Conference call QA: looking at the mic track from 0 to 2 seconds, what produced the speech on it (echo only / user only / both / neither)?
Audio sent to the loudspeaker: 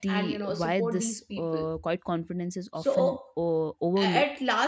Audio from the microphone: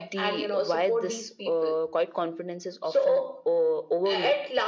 echo only